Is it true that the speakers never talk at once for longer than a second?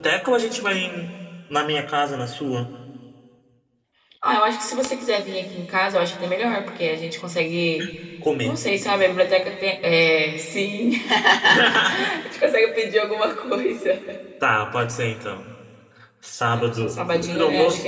No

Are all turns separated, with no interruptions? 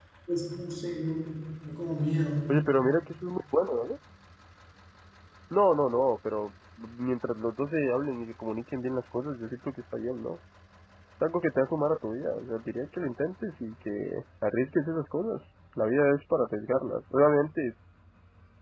Yes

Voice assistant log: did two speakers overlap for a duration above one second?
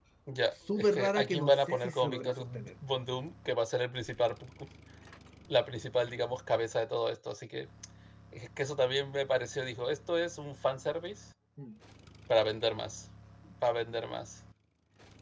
Yes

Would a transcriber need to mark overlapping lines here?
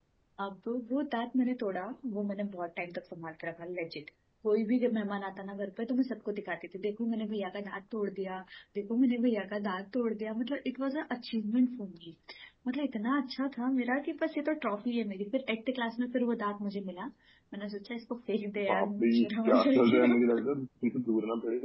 Yes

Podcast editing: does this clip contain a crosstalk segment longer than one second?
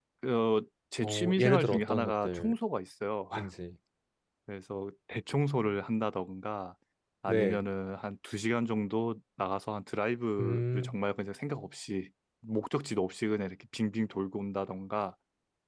Yes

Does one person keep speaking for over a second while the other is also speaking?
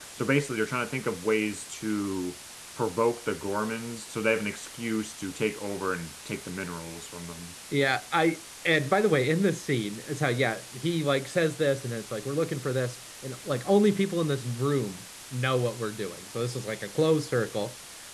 No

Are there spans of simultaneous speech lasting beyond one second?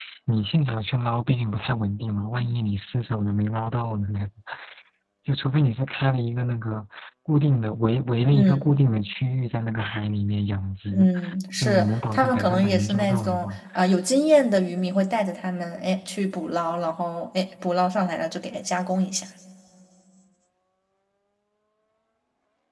Yes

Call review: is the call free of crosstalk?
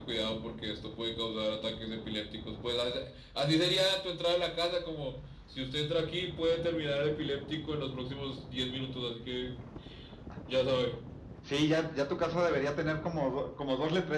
Yes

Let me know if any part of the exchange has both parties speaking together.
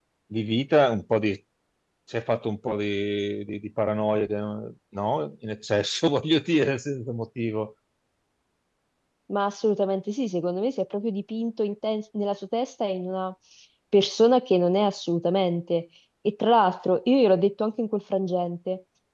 No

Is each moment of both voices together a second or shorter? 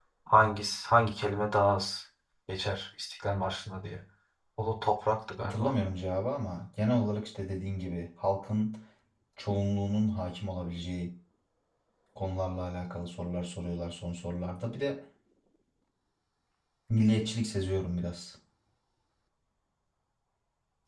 Yes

